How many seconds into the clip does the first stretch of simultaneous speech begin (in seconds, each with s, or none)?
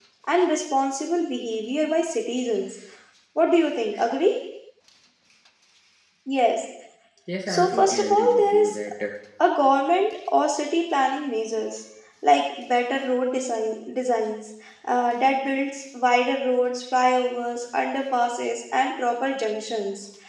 7.5 s